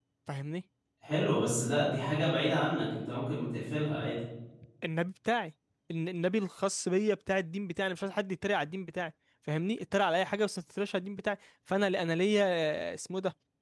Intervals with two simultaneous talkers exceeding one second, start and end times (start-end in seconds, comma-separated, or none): none